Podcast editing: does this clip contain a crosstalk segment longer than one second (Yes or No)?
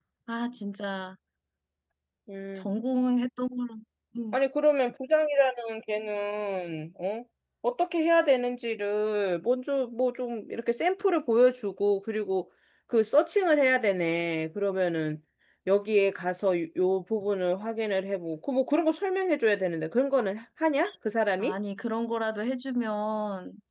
No